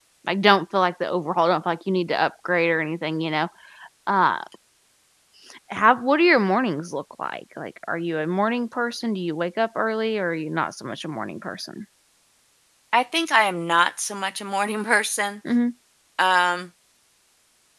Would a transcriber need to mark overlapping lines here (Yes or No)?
No